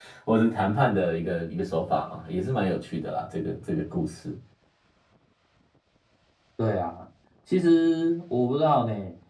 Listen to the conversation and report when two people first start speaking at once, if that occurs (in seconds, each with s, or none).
none